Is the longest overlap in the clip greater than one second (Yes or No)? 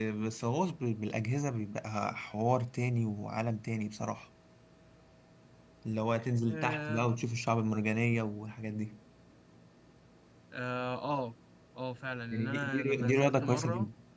Yes